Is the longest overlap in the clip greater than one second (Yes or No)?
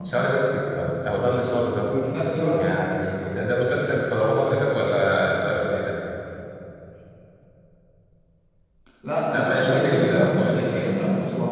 Yes